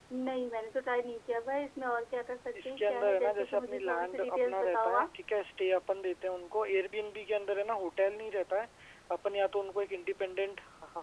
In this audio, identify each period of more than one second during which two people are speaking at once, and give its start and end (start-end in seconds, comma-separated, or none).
2.6-5.1